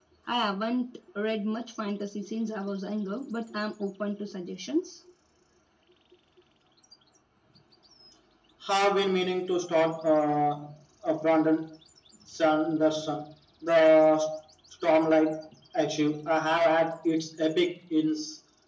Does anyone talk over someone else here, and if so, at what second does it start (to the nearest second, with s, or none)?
none